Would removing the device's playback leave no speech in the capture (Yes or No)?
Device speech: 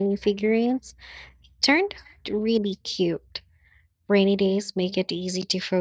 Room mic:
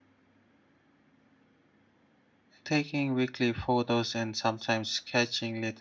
No